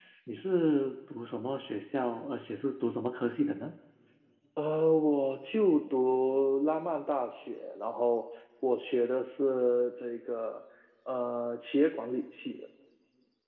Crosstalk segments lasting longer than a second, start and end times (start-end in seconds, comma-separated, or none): none